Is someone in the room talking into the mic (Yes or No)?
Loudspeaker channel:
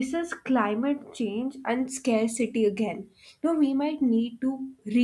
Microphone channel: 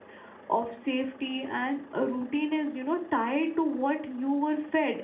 Yes